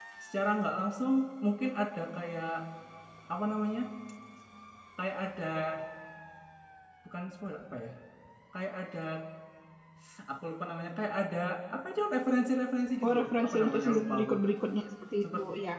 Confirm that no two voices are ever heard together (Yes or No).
No